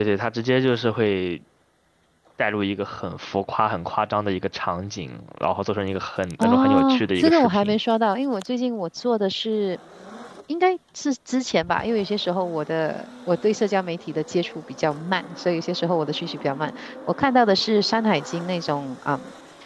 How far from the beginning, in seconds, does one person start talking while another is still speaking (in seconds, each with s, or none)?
6.4 s